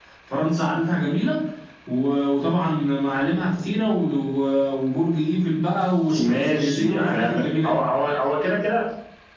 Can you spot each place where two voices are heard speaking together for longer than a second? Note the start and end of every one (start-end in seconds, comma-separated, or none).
6.2-7.8